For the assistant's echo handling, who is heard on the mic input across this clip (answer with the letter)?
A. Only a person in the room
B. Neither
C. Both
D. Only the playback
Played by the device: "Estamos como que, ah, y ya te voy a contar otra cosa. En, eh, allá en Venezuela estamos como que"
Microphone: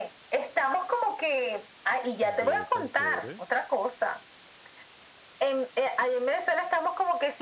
C